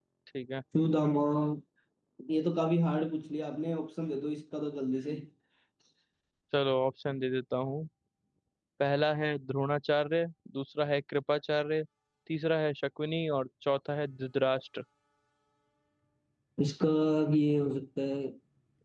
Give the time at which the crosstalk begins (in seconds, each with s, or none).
none